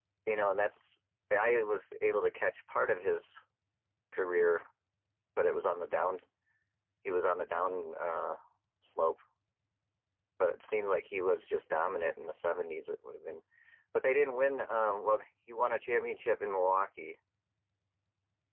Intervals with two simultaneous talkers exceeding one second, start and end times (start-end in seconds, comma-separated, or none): none